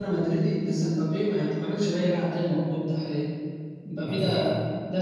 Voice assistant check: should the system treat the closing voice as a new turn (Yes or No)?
No